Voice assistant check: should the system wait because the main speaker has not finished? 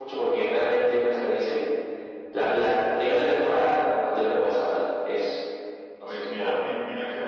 No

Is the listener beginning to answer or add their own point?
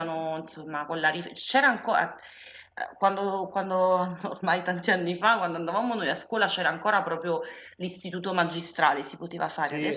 Yes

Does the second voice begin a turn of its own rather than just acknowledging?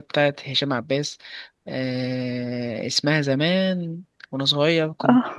No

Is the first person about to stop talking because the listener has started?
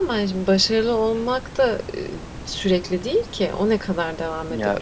No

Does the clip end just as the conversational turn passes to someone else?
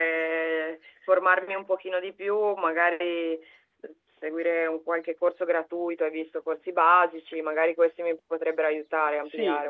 Yes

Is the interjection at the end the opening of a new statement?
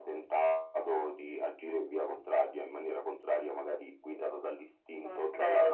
Yes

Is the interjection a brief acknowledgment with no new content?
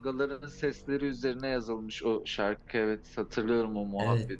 No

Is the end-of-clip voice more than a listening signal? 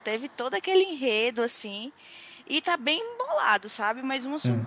No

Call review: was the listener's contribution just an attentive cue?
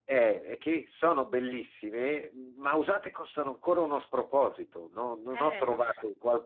Yes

